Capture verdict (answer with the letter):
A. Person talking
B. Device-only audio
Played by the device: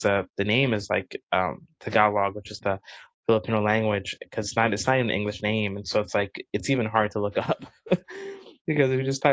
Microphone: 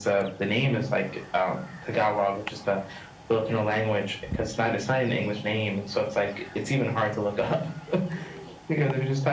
B